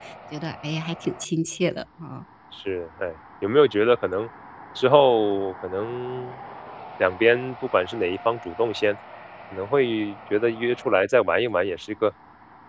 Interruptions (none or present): none